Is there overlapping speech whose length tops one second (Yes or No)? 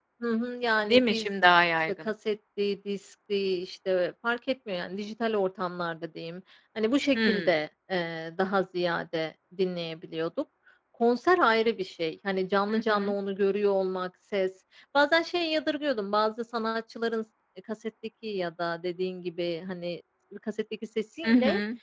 No